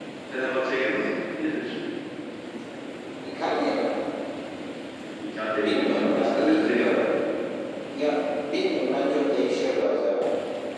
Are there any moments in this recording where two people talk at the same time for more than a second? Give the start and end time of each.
5.6-7.1

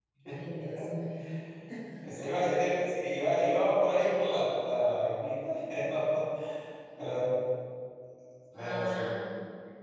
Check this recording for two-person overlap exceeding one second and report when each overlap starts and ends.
none

